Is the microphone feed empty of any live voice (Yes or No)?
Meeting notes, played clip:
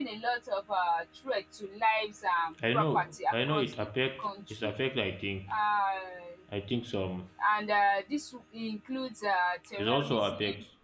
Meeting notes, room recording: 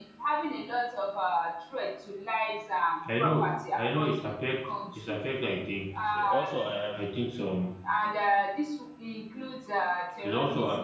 No